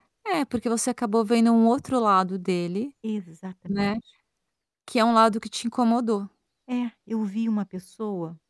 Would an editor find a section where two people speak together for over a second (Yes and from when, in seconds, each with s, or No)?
No